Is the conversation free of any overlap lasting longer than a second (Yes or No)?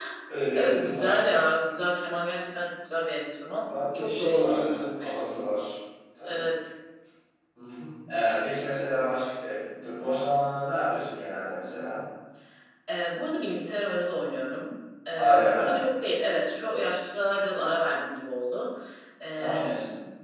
No